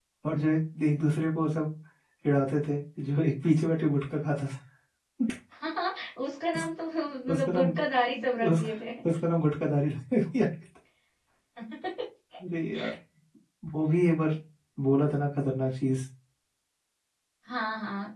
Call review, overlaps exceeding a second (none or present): none